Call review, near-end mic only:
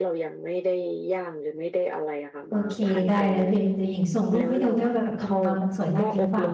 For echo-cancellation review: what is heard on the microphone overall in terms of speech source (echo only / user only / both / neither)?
both